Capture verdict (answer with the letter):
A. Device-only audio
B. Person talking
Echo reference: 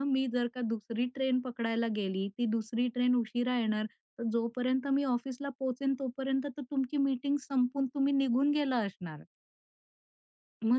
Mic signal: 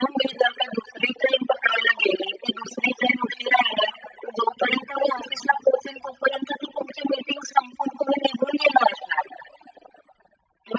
A